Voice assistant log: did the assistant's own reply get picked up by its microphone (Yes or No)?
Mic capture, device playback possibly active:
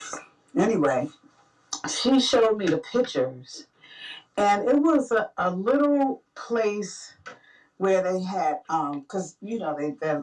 Yes